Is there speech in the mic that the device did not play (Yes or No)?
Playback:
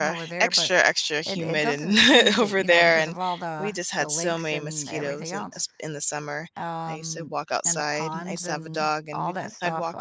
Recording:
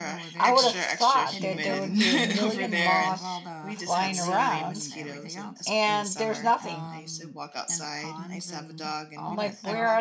Yes